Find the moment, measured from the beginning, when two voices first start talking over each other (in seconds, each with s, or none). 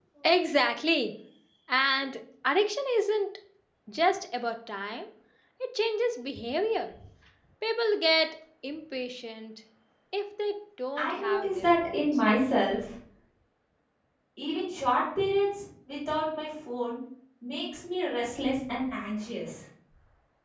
11.0 s